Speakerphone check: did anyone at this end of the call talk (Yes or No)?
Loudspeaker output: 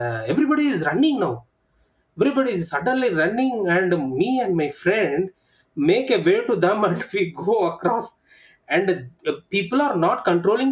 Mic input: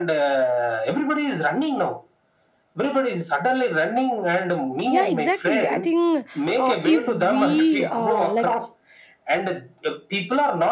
Yes